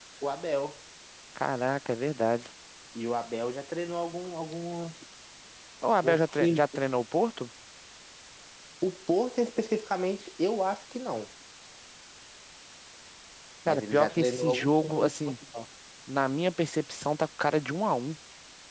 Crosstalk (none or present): present